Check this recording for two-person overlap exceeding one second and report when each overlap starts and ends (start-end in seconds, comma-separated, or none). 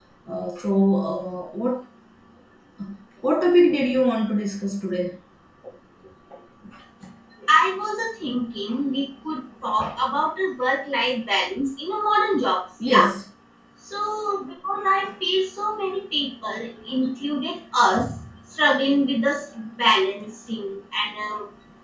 none